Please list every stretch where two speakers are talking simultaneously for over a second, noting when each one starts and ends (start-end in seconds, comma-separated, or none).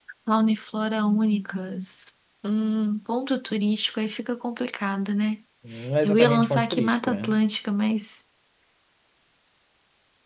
6.0-7.4